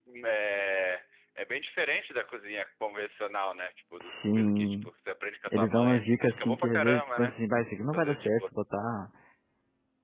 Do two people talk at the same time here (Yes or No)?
Yes